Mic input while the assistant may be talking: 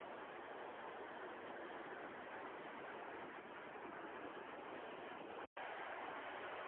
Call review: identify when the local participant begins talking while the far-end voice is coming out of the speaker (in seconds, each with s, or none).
none